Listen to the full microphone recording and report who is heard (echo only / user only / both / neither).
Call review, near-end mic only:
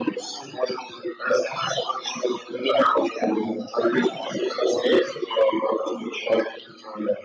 echo only